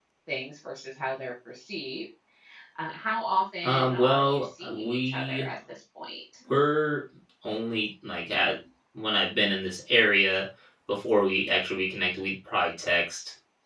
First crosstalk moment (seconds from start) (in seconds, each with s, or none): 3.6 s